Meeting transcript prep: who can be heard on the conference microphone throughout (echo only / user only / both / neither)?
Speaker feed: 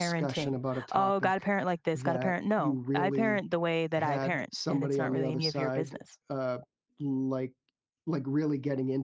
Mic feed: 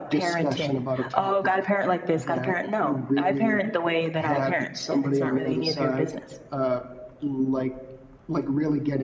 echo only